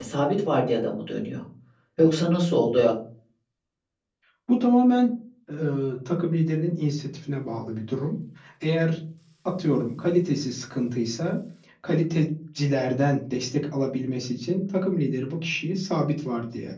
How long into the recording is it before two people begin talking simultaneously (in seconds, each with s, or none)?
none